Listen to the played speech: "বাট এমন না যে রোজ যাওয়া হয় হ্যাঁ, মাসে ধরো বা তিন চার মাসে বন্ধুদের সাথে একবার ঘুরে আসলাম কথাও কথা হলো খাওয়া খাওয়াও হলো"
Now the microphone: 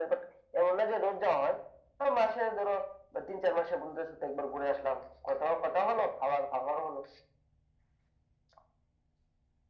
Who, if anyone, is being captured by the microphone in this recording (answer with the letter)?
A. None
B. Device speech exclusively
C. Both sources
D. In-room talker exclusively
B